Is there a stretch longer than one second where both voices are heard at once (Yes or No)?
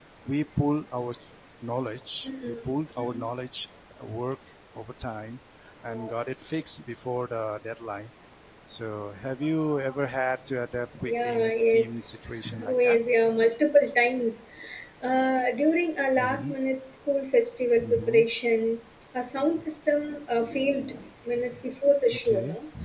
Yes